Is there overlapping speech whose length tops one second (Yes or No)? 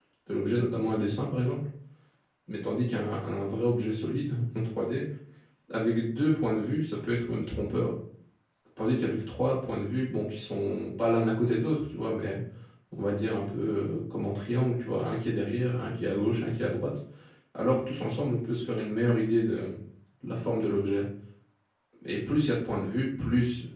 No